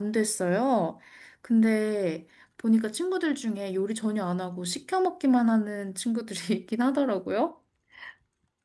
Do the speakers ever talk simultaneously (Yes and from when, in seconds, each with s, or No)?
No